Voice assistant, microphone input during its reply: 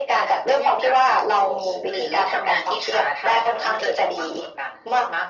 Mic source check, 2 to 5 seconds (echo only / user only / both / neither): echo only